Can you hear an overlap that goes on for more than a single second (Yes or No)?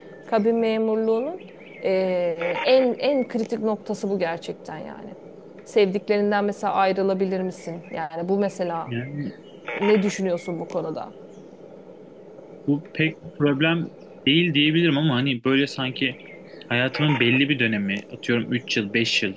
No